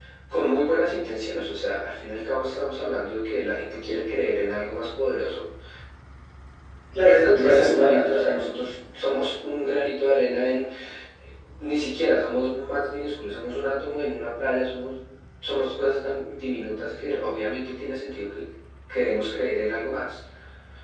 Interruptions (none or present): present